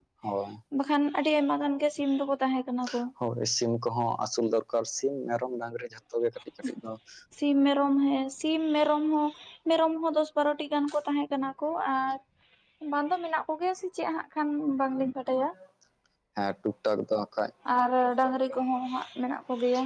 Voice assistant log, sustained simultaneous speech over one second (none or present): none